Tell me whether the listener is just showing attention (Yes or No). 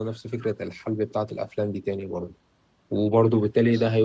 Yes